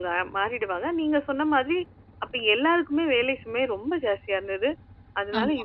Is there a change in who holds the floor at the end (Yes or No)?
No